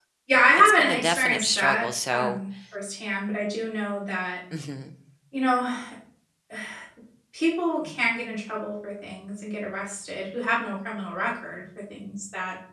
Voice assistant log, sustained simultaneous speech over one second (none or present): present